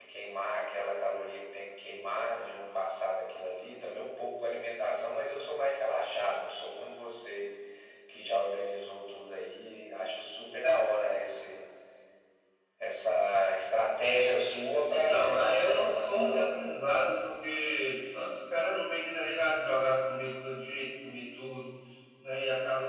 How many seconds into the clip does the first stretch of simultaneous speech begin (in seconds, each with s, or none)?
14.9 s